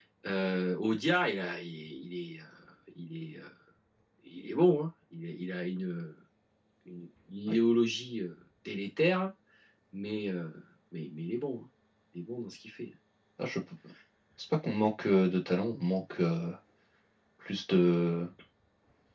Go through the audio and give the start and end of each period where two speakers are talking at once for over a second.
none

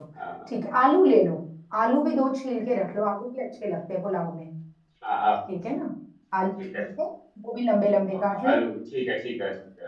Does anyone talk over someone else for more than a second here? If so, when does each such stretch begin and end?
none

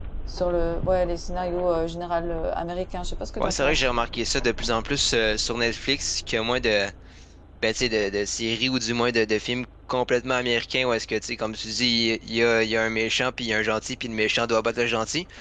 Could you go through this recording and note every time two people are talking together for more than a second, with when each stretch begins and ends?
none

